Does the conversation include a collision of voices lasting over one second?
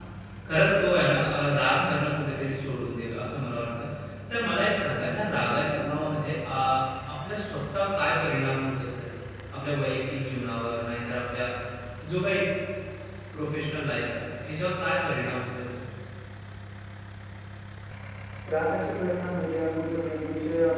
No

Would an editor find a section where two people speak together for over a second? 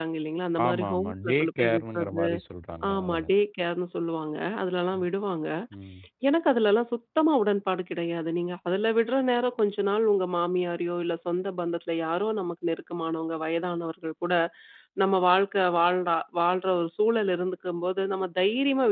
Yes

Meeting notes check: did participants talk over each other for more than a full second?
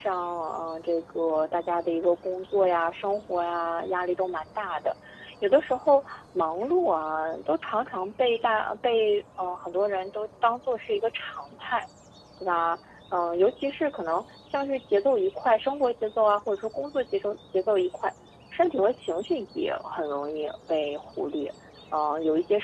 No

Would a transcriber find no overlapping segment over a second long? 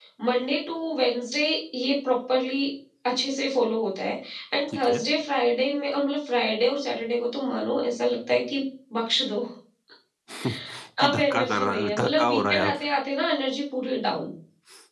No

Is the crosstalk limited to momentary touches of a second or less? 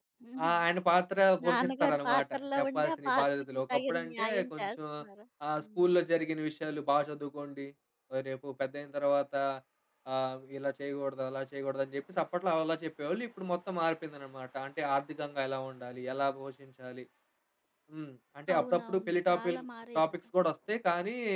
No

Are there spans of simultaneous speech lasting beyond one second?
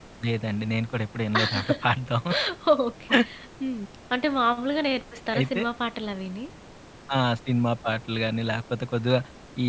No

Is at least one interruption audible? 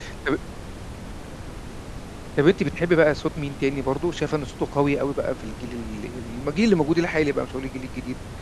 No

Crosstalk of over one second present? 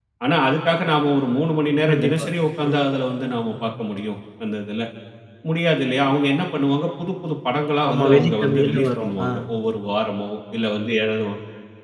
Yes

